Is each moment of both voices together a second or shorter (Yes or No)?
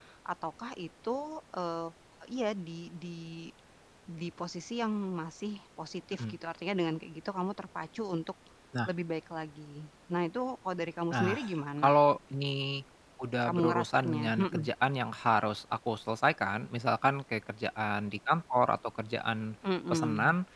No